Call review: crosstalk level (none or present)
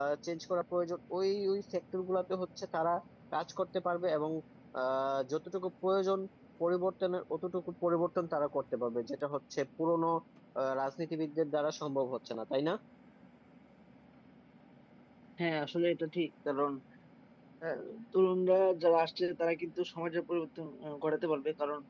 none